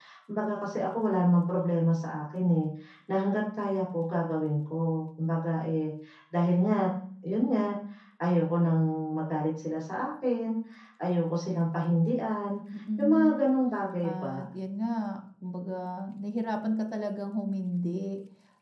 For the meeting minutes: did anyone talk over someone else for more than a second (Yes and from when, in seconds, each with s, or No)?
No